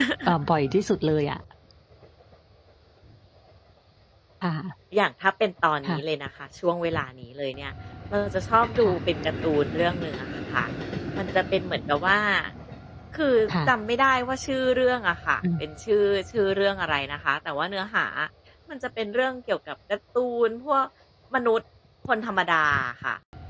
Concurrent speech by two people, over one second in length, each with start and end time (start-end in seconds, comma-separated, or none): none